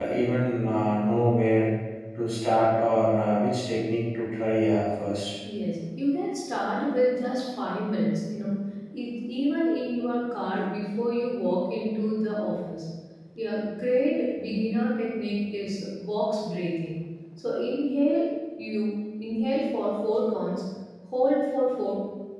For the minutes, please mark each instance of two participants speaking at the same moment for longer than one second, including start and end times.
none

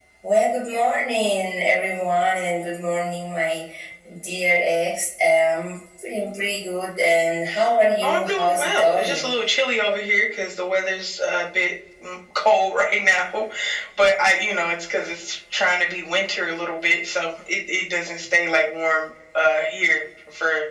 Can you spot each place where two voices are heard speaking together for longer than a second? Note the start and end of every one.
8.0-9.3

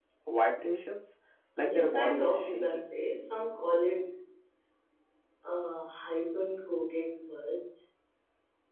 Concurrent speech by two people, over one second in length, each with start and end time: 1.6-2.9

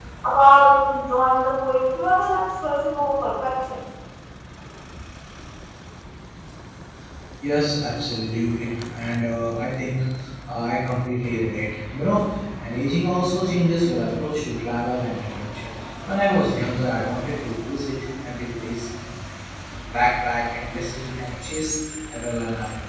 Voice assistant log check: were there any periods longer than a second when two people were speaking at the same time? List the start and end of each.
none

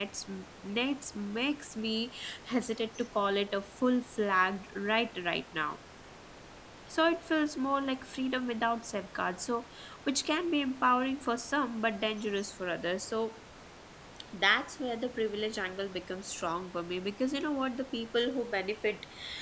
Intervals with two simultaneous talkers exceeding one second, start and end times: none

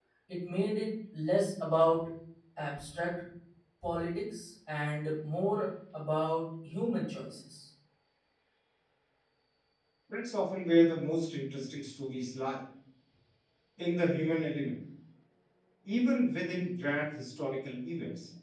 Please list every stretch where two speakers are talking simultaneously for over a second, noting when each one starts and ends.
none

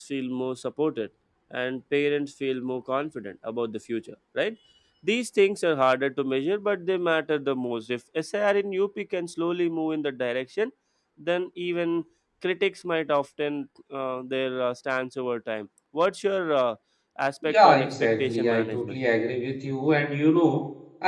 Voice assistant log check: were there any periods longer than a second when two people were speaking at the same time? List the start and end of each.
17.4-19.0

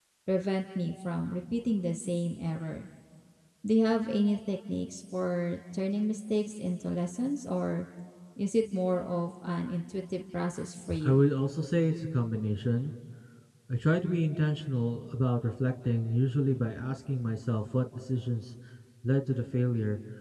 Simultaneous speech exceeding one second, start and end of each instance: none

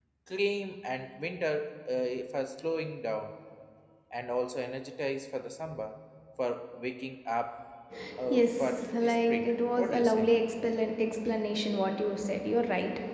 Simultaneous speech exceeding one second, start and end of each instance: 8.3-10.3

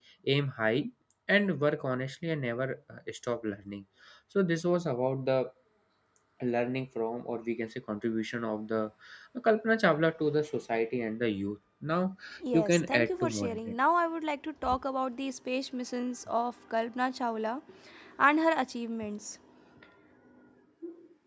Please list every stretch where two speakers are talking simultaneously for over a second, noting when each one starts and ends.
12.5-13.8

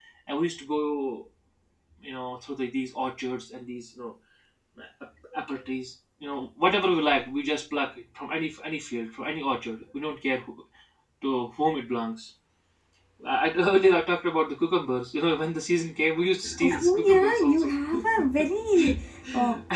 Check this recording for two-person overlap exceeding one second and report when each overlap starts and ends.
16.4-17.7

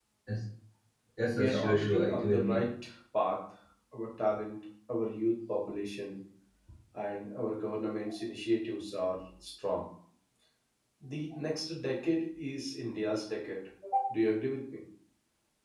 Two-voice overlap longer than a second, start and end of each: 1.4-2.6

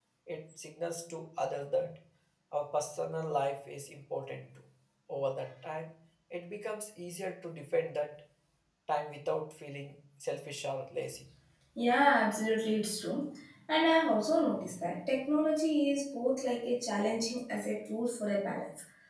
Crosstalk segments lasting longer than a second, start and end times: none

